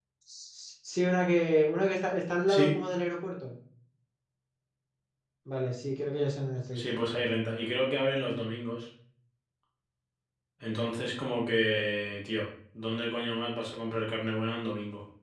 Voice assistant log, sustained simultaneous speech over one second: none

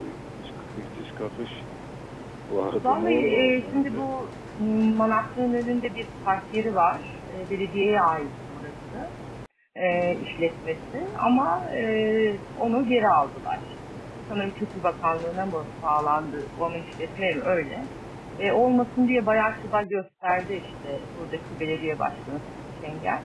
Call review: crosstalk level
present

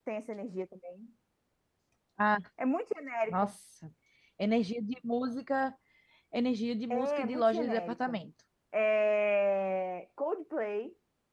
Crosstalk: present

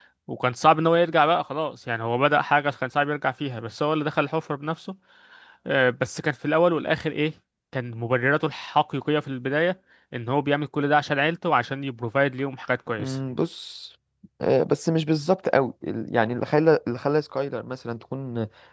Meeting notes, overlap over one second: none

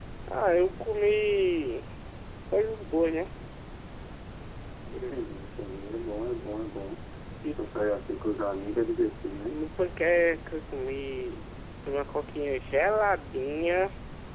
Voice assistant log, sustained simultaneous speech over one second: none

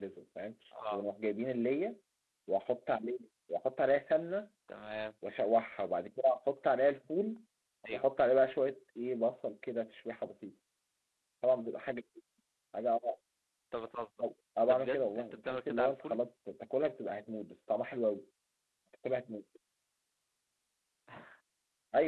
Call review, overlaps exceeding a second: present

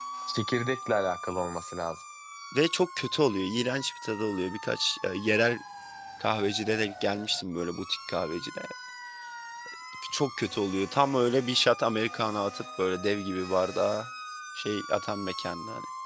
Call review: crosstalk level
none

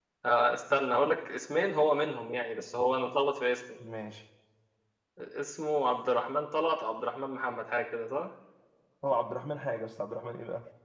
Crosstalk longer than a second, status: none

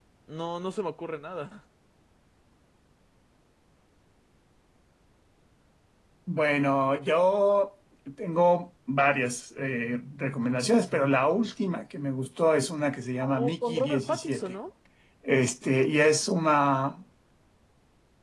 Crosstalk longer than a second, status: present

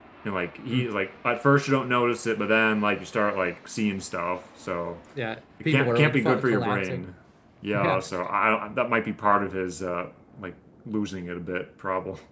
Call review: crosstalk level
present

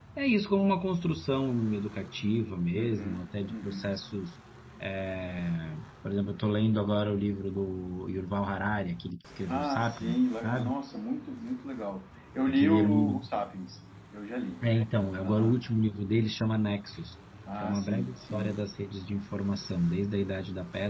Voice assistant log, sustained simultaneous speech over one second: present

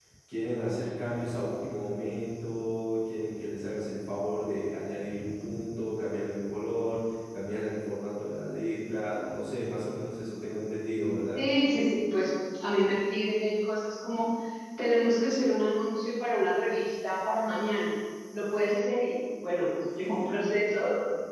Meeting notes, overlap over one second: none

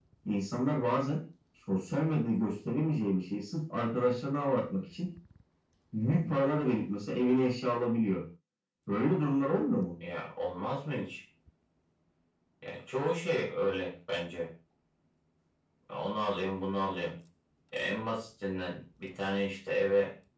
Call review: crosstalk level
none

